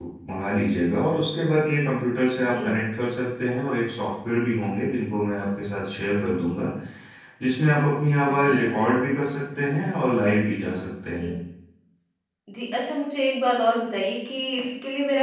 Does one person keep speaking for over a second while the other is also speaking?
No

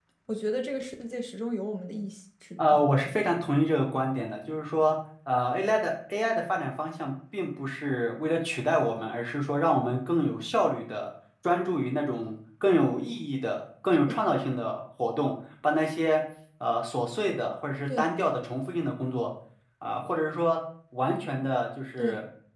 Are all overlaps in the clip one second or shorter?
Yes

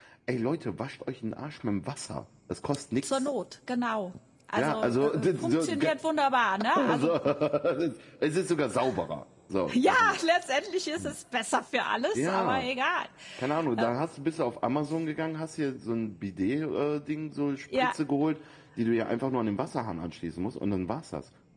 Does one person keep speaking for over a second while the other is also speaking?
Yes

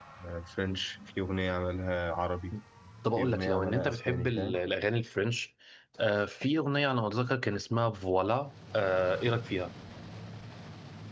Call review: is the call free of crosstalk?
No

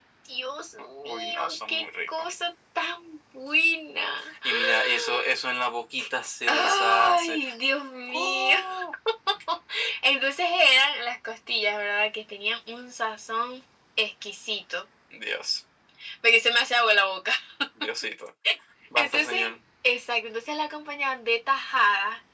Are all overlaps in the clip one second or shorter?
No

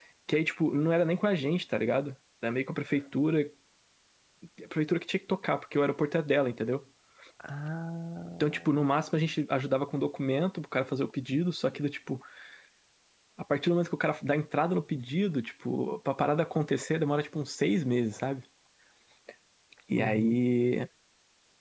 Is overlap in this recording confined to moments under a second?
Yes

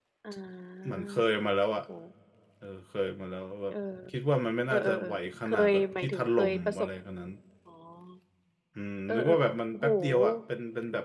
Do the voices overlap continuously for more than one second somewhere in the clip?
Yes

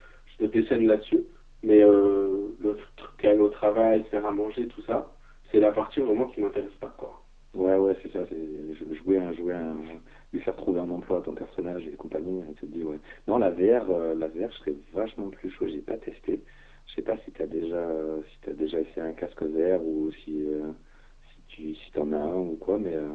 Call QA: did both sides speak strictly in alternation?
Yes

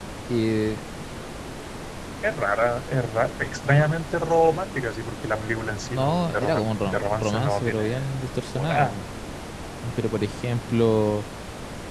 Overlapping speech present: Yes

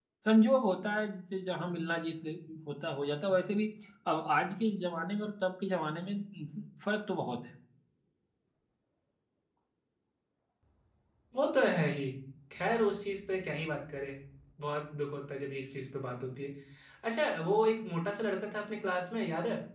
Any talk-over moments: No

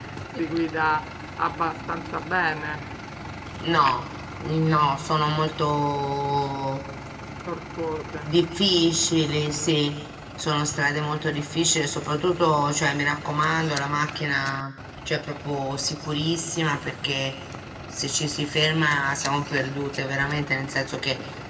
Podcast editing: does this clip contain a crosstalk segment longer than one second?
No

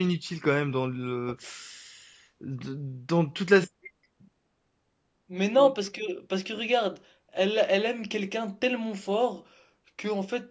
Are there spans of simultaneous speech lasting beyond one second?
No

